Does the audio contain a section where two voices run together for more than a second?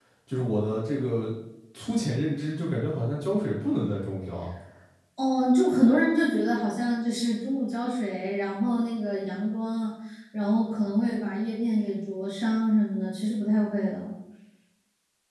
No

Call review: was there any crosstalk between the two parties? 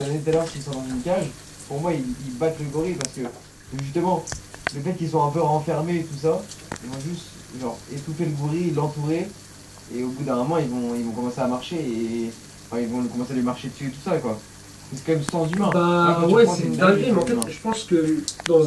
Yes, from 15.6 s

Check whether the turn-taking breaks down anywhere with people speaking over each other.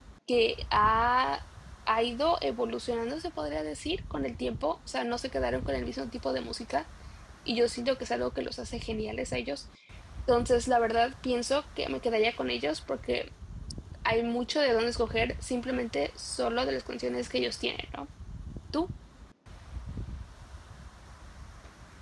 No

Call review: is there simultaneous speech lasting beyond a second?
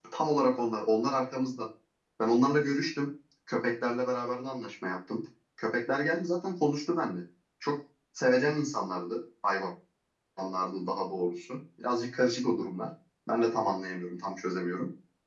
No

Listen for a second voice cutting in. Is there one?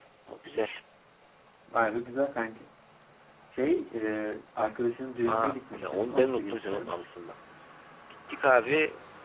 Yes, from 5.2 s

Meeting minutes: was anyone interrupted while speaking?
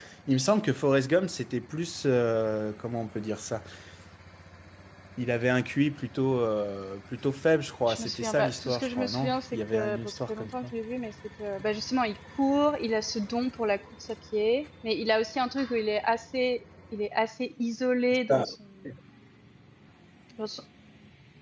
Yes, from 7.9 s

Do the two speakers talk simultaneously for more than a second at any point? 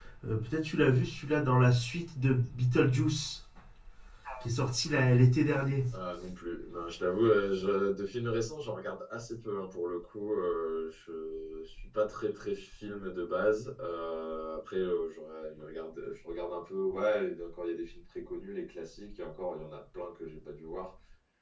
No

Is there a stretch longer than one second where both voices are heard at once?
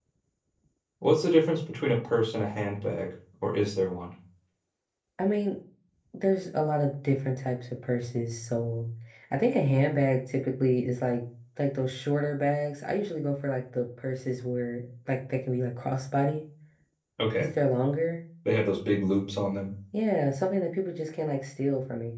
No

